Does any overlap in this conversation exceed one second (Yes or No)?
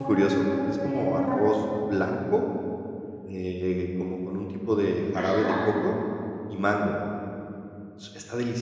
Yes